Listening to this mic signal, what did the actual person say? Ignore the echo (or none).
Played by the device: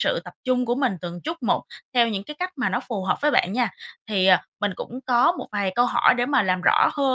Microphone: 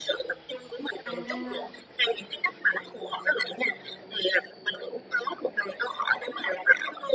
À!